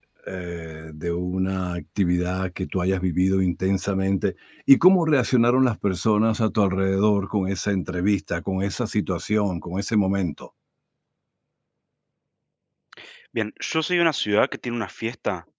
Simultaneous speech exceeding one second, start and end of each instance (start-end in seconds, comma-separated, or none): none